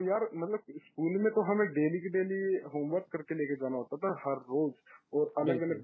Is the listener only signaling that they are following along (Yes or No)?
Yes